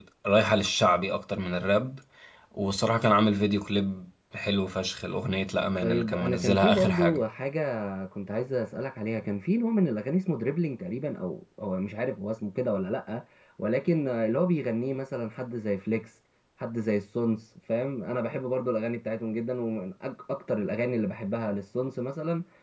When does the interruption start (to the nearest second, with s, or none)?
6 s